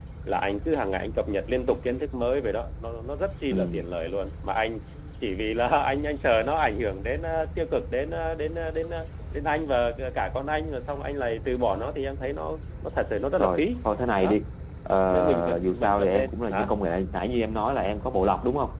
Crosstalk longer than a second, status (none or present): present